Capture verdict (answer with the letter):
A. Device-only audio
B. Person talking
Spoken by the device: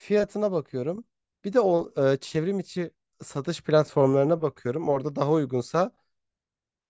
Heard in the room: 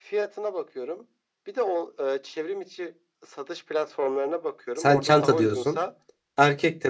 B